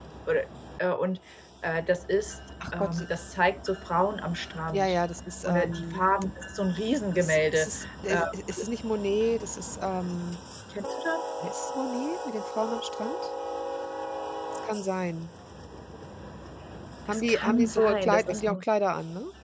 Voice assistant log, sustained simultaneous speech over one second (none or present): present